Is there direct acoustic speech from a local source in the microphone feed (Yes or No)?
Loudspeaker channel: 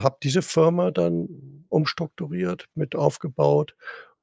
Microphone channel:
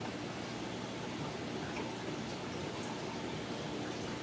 No